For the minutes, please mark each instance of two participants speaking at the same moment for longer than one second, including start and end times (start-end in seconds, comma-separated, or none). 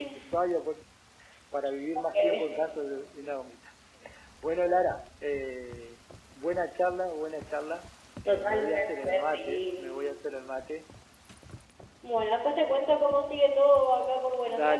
8.3-9.9